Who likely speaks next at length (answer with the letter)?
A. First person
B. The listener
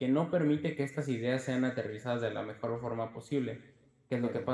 A